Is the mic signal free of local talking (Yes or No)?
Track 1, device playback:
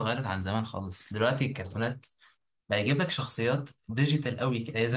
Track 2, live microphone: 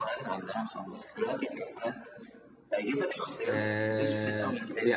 No